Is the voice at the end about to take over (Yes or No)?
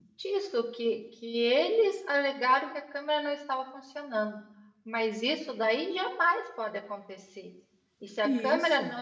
No